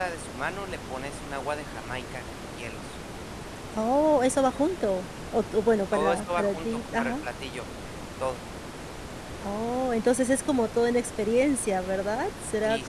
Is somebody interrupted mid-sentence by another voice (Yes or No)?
Yes